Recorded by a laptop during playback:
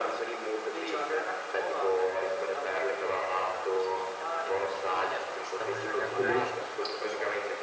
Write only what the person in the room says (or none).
Dai, raga, quello lì ci sono cresciuti.